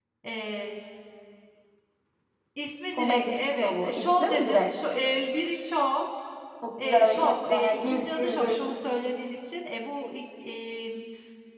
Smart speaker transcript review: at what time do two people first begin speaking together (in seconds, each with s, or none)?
3.0 s